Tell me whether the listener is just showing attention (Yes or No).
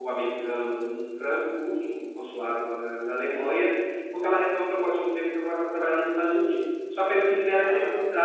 Yes